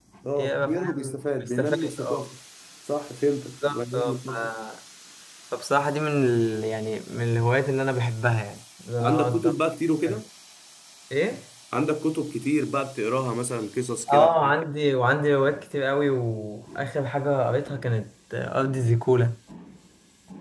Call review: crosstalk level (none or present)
present